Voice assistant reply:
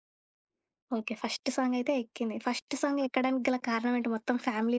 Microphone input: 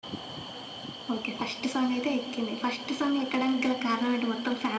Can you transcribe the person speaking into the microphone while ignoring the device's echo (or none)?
none